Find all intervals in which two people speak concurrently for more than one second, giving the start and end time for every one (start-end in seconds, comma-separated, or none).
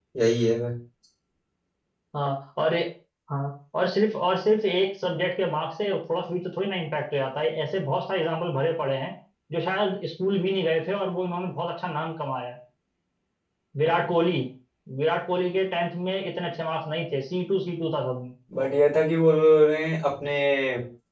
none